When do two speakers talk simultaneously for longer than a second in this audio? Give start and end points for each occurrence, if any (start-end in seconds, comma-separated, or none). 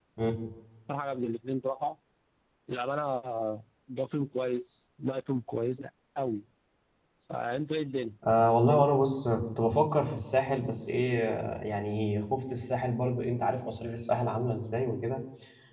none